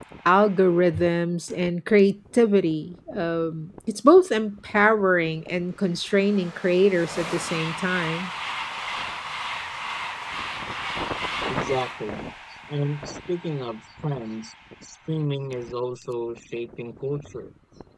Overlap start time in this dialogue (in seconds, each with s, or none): none